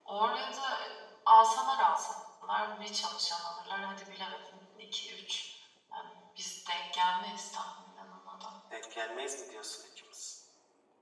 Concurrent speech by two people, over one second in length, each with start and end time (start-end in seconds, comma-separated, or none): none